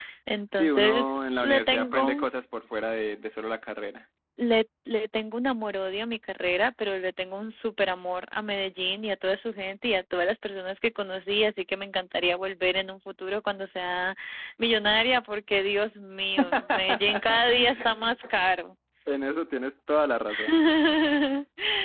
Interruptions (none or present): present